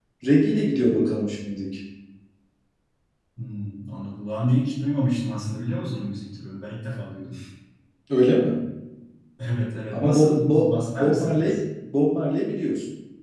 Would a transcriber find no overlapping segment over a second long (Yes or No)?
No